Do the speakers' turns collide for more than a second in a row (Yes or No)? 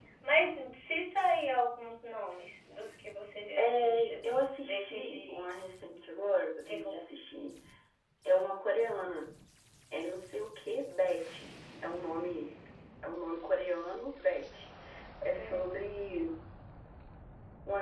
Yes